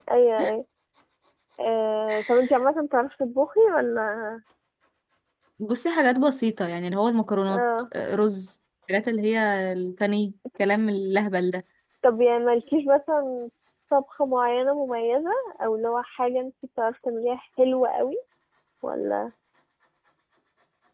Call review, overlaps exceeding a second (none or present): none